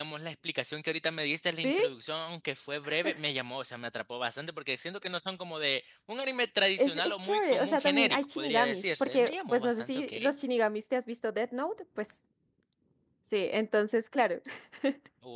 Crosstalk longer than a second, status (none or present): present